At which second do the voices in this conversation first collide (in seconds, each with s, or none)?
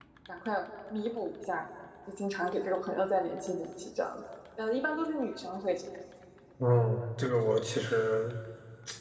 none